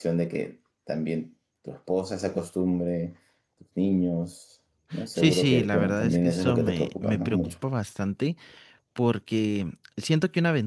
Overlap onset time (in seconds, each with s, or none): 5.2 s